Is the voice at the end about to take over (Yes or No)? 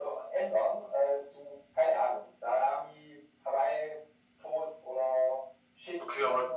Yes